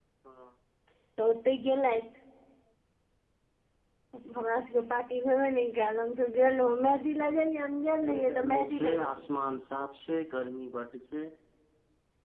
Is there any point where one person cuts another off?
Yes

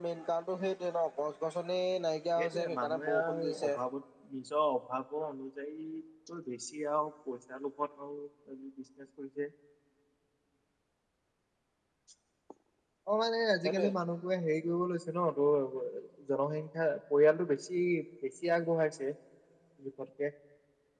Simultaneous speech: Yes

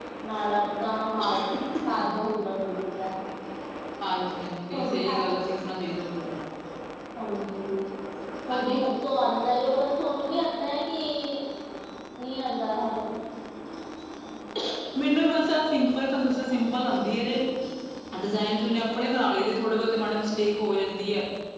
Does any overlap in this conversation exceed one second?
No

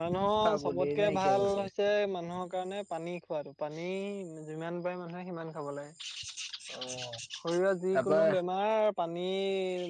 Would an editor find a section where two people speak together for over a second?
Yes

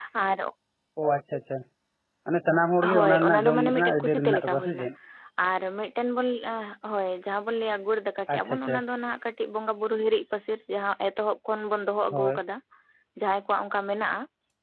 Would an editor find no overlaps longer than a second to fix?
No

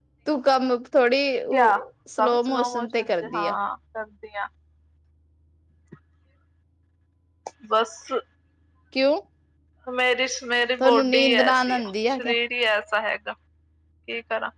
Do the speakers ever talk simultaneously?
Yes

